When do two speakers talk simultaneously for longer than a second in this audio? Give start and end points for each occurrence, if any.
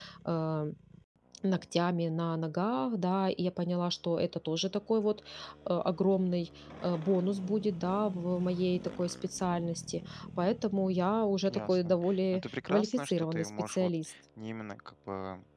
11.5-13.9

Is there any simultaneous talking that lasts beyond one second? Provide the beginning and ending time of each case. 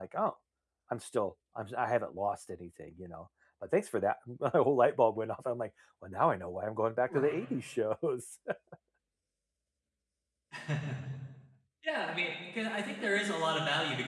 none

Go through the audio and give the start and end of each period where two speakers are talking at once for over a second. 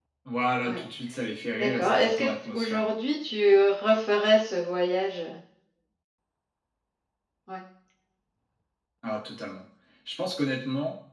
1.5-2.9

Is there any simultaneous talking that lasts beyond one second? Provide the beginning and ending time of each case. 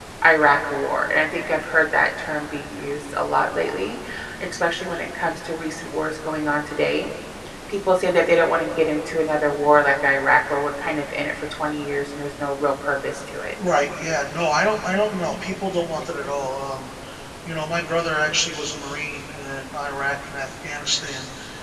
none

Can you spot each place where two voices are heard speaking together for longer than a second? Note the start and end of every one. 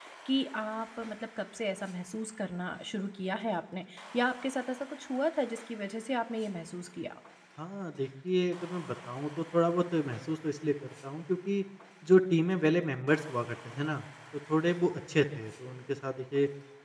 none

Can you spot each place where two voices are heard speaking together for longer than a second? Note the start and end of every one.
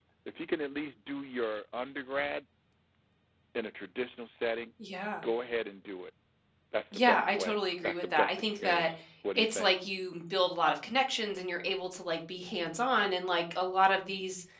6.9-8.9

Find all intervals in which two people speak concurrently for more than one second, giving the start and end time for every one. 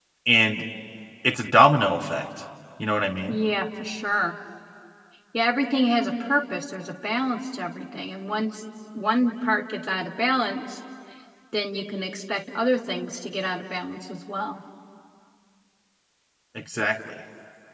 none

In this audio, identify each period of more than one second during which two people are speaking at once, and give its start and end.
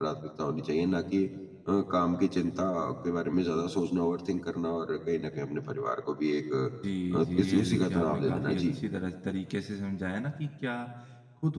7.1-8.8

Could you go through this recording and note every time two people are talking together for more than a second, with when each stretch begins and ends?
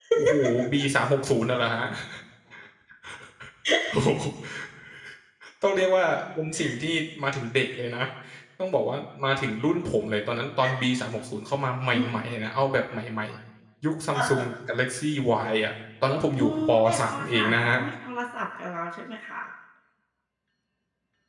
16.4-17.8

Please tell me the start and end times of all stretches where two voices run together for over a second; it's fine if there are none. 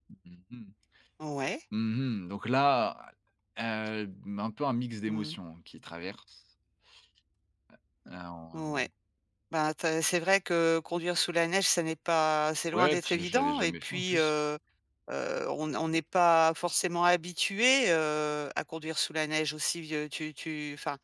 12.7-14.3

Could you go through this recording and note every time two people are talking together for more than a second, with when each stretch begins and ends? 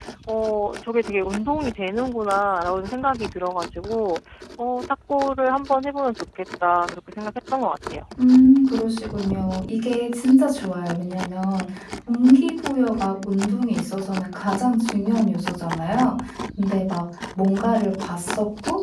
none

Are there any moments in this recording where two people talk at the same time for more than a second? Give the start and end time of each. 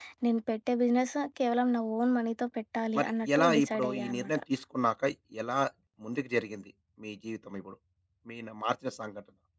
3.0-4.4

